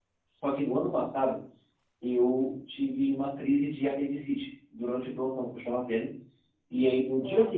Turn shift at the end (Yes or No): No